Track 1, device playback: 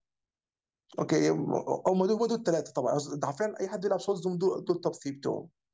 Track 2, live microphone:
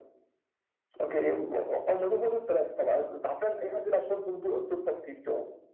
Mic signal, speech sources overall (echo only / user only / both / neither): echo only